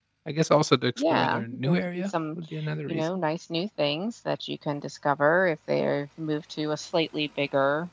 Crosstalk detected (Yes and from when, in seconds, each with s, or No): Yes, from 1.0 s